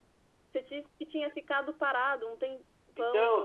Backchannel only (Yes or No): No